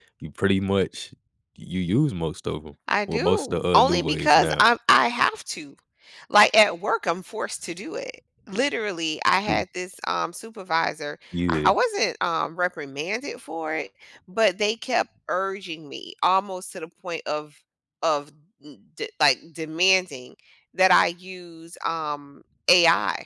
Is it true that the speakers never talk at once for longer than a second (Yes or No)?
No